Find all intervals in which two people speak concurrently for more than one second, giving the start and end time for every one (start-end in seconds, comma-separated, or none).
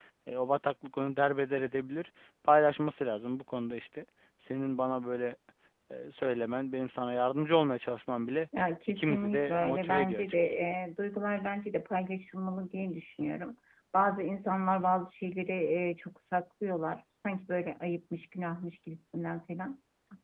8.9-10.6